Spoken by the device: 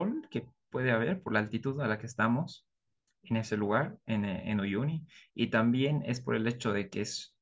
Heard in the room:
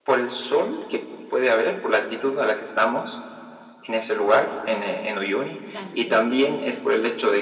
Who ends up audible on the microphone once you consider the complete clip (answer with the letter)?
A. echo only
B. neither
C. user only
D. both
D